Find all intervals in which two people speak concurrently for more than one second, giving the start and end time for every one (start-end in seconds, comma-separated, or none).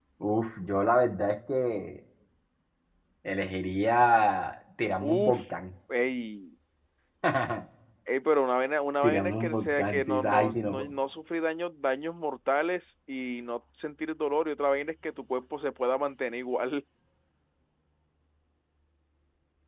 9.0-10.9